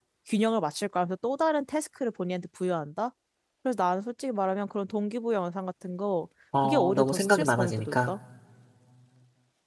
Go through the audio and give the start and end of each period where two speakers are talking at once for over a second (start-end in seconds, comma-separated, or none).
6.6-8.1